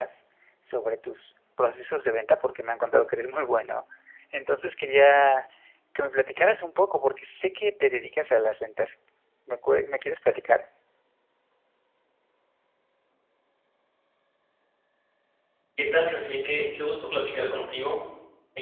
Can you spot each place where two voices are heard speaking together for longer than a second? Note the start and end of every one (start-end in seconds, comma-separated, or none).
none